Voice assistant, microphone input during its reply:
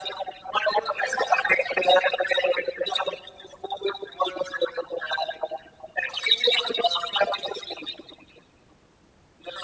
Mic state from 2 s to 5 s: echo only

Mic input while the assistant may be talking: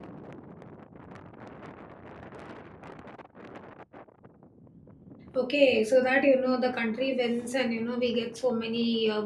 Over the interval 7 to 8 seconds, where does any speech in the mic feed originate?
user only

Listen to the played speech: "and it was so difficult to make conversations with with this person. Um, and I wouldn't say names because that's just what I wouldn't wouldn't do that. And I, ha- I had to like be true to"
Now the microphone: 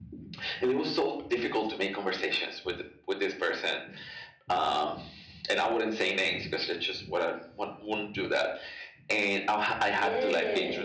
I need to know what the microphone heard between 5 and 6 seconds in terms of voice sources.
echo only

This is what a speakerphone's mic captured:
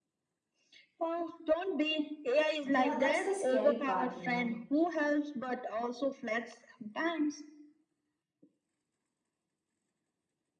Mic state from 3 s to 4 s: both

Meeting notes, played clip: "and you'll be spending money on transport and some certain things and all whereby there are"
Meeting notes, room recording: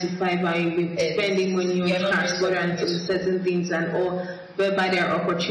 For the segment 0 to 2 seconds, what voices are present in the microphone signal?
both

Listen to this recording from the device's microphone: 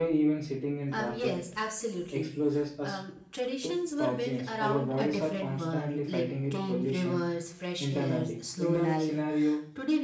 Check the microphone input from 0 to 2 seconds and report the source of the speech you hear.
both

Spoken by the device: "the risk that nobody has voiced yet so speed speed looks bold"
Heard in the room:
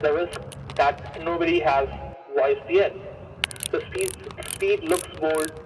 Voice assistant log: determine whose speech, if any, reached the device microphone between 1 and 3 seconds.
echo only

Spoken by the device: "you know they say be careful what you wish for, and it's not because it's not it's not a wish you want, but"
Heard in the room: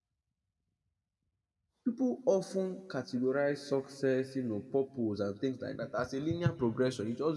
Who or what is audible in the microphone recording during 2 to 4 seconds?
user only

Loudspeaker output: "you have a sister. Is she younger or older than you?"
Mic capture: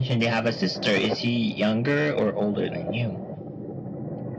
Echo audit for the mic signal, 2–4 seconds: echo only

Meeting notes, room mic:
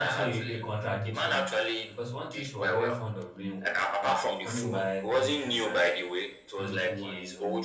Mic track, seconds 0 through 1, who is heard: both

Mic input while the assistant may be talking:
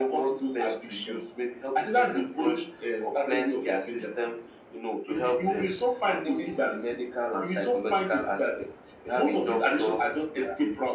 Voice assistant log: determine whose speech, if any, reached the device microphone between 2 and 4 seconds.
echo only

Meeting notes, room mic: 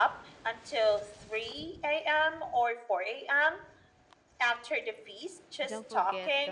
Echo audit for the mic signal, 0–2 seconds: echo only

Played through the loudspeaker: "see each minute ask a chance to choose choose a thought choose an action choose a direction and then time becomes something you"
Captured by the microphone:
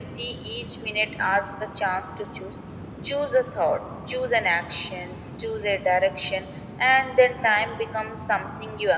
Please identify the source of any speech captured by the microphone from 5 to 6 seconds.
echo only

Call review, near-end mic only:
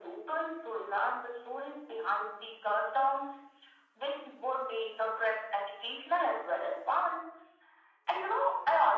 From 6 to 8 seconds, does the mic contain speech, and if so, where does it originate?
echo only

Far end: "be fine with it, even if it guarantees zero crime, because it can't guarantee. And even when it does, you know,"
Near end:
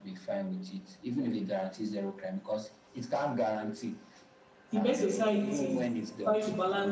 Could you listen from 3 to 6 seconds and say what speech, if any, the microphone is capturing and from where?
both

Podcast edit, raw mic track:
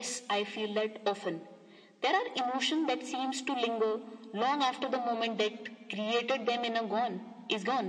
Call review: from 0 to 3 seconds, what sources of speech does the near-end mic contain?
echo only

